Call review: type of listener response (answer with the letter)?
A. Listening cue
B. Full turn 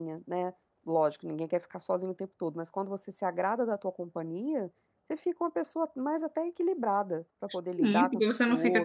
B